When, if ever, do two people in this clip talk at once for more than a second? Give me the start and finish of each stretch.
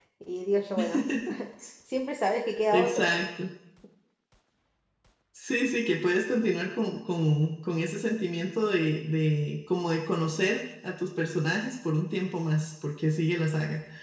none

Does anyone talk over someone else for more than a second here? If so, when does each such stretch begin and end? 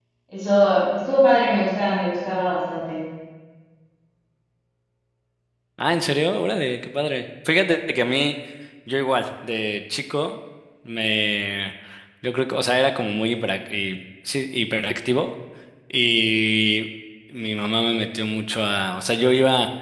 none

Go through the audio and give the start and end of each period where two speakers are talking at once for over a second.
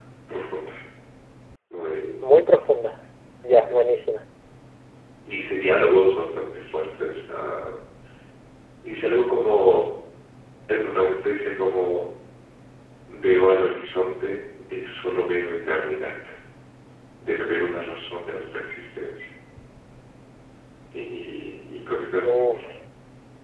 none

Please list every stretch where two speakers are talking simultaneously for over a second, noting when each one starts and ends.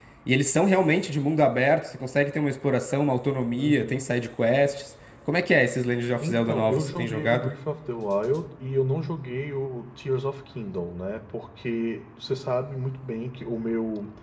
6.2-7.5

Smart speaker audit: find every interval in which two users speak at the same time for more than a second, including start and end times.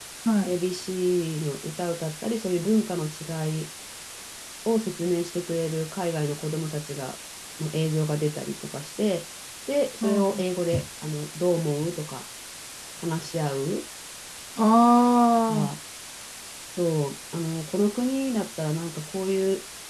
none

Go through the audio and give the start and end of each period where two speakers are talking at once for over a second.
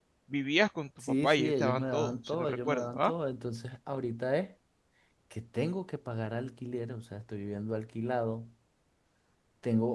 1.2-3.1

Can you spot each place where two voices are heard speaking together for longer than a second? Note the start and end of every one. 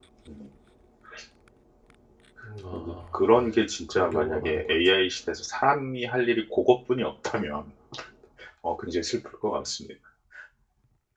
2.7-4.8

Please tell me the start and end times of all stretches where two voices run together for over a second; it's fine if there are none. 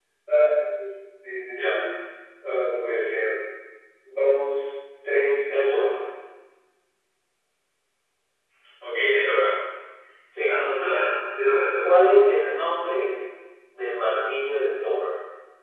none

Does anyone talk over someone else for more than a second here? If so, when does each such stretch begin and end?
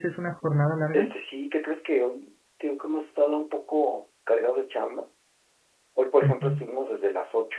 none

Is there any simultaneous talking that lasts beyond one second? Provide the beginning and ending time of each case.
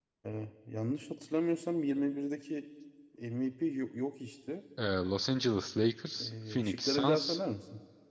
6.2-7.4

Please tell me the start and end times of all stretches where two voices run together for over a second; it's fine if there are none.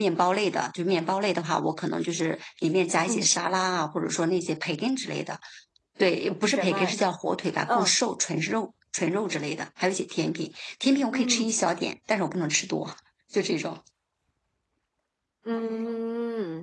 none

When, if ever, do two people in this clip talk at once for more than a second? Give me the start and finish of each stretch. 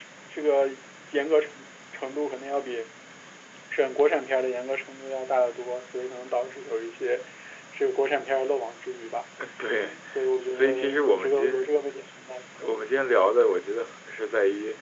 10.5-11.7

